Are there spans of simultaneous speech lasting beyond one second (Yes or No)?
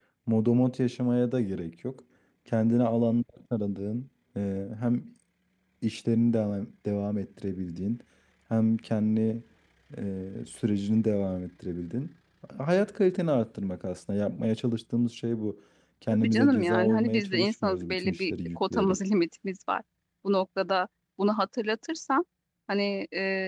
Yes